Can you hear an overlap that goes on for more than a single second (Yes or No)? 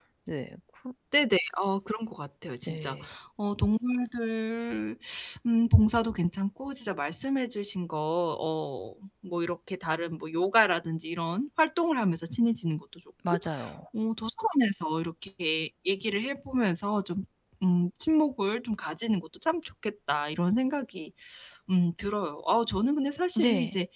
No